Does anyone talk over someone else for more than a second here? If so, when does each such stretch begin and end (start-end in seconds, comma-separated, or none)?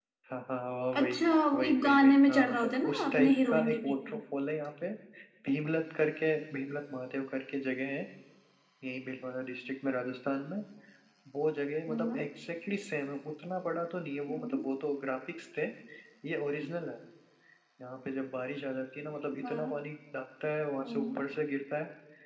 1.5-4.2